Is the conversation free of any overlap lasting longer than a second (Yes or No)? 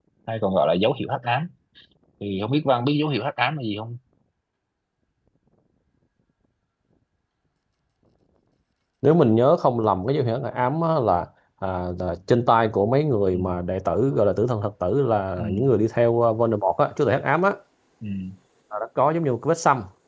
Yes